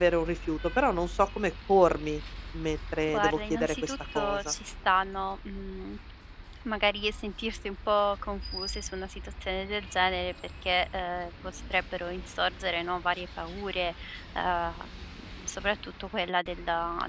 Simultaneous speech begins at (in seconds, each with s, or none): 3.1 s